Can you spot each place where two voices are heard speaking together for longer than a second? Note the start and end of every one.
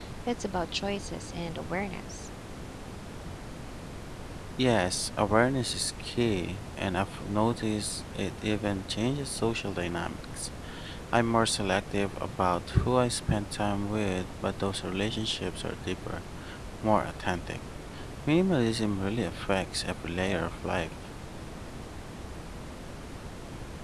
none

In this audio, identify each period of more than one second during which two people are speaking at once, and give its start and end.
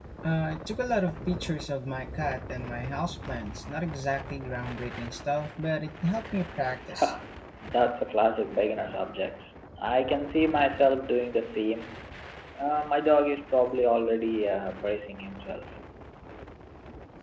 none

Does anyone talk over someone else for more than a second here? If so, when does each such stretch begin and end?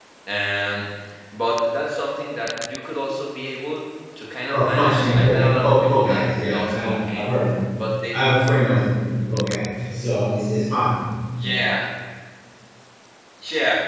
4.5-7.3

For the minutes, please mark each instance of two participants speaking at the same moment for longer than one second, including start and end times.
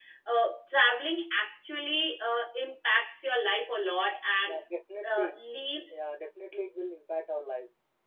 none

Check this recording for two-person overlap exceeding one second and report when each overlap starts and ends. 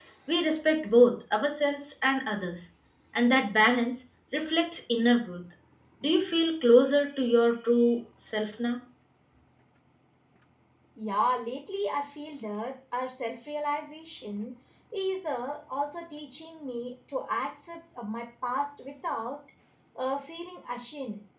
none

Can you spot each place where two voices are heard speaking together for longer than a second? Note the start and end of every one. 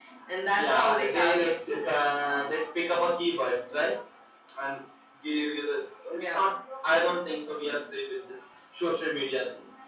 0.6-1.9

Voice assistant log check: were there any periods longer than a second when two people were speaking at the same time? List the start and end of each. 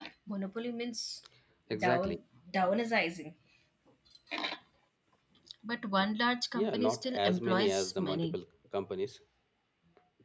6.5-8.4

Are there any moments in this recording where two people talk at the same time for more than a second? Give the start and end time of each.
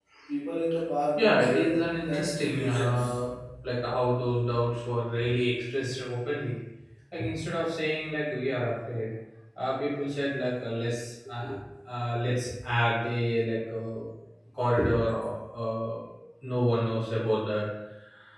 1.2-3.2

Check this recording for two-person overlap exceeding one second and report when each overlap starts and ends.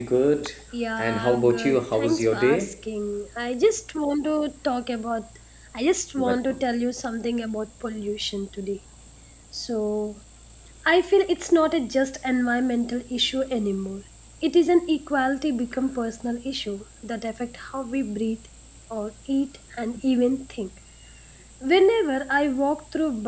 1.0-2.7

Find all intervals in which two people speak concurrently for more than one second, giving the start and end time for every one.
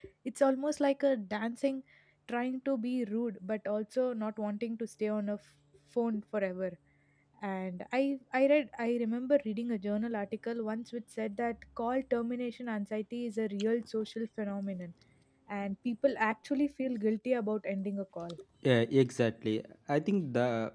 none

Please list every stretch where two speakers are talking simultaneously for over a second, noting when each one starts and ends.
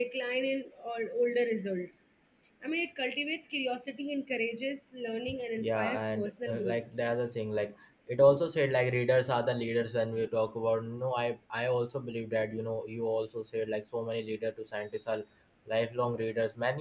5.6-6.8

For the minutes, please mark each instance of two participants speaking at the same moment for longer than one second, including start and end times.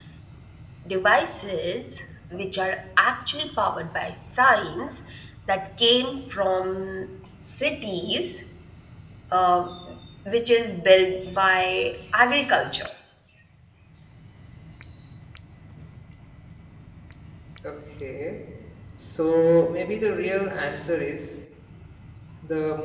none

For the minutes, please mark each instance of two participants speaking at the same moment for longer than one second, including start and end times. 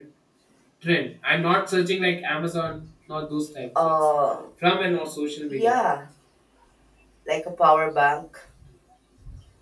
none

